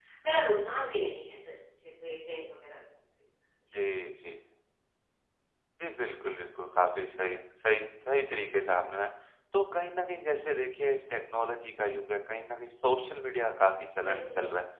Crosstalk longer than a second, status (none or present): none